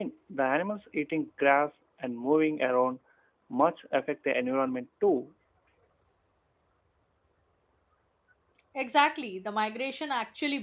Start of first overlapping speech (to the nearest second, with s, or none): none